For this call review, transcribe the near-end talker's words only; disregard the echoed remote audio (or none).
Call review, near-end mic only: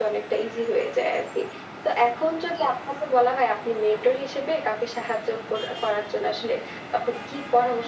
none